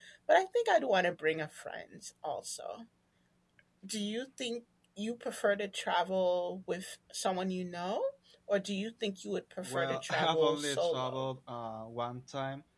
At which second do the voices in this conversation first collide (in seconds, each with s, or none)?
9.6 s